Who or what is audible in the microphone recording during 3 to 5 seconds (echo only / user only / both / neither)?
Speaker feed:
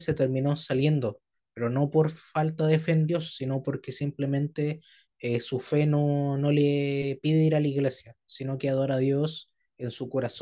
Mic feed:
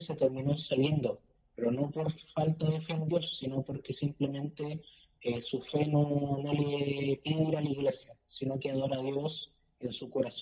echo only